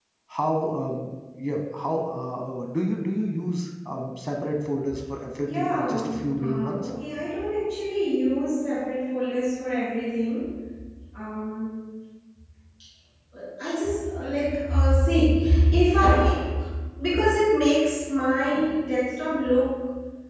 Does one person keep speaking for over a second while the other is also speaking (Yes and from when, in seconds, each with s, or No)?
Yes, from 5.5 s